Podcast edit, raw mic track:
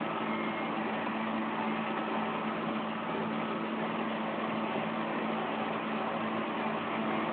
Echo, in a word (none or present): none